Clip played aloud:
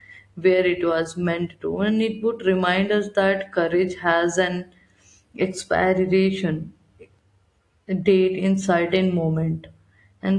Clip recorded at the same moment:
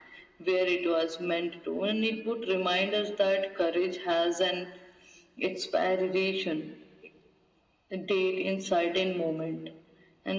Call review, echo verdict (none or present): present